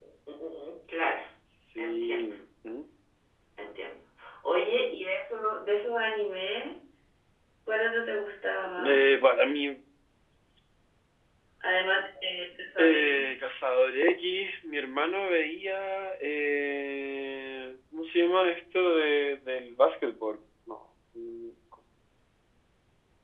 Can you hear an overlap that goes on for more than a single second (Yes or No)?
No